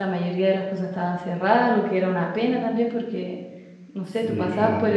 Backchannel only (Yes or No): Yes